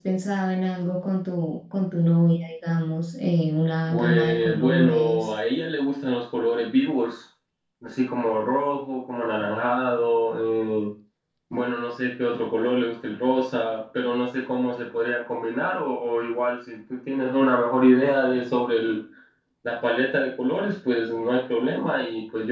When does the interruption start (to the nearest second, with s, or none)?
4 s